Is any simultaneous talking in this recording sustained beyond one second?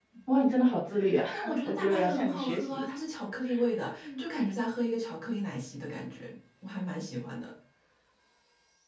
Yes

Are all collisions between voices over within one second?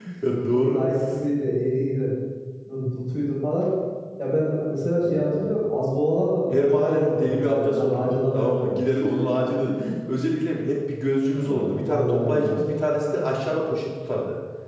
No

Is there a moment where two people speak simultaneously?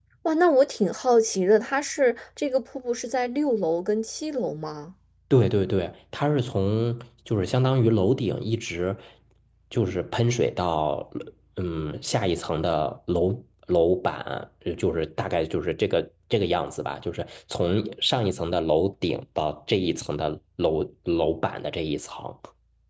No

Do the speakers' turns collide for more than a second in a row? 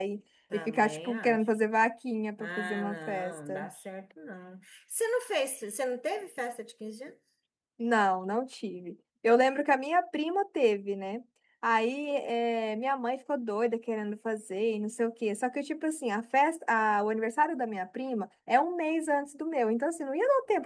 Yes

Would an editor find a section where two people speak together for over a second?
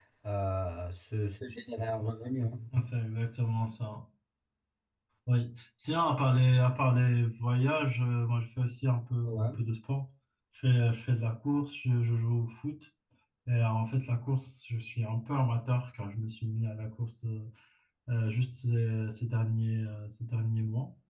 No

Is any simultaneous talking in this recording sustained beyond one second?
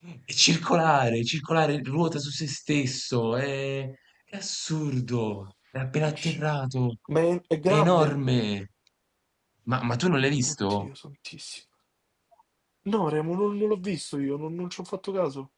No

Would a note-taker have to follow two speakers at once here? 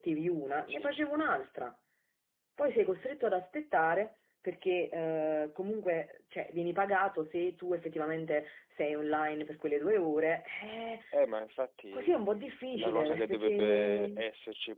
Yes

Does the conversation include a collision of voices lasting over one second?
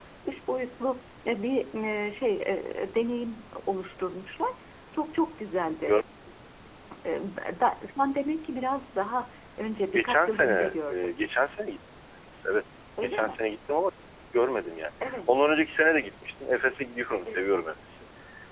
Yes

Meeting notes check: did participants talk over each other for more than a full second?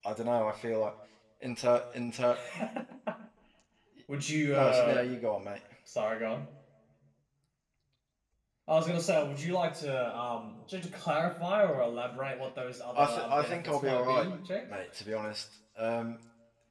Yes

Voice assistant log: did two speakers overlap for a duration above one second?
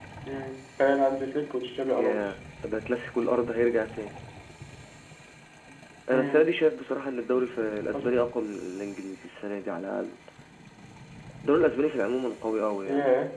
No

